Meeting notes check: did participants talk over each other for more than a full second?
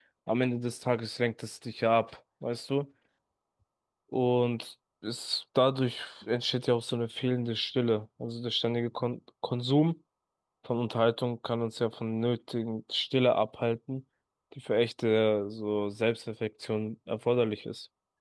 No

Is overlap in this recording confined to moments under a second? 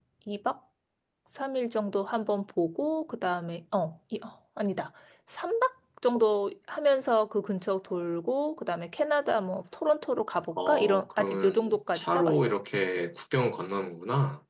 No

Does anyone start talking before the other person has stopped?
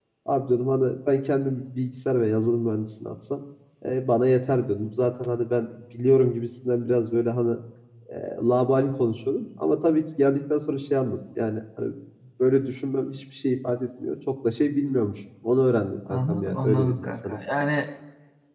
Yes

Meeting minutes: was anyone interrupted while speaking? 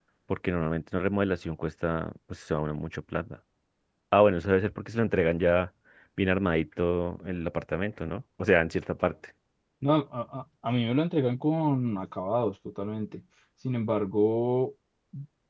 No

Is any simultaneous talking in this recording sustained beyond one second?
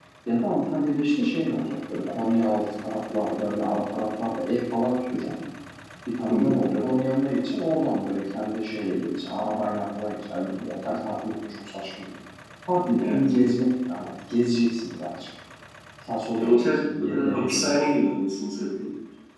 Yes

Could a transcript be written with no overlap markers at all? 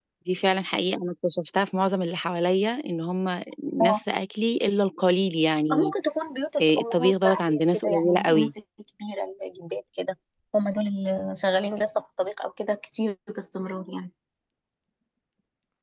No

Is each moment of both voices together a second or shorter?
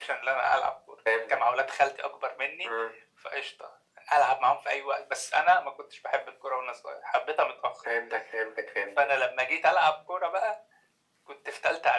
Yes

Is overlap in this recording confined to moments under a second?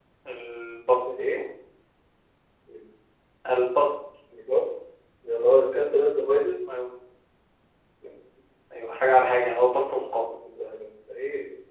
Yes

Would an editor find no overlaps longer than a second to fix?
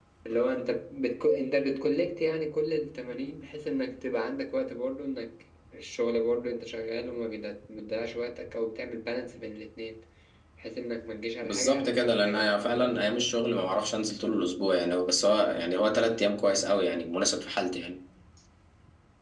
No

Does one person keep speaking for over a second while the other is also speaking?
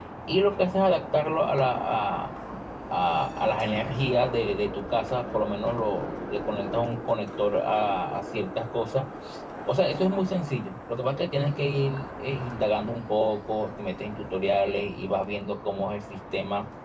No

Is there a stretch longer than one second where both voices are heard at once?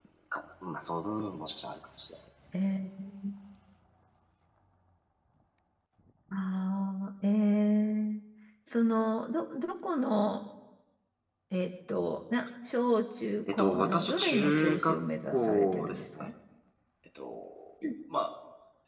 Yes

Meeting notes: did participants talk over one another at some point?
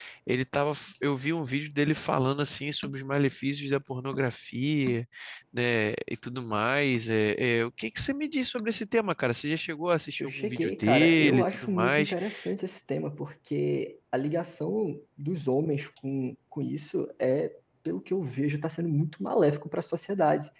Yes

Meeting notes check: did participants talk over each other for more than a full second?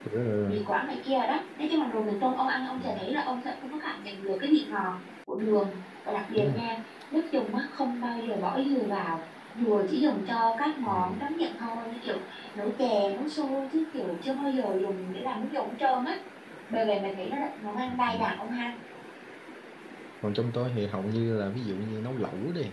No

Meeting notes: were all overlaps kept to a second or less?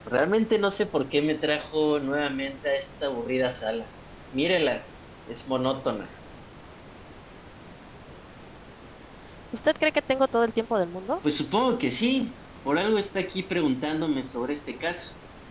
Yes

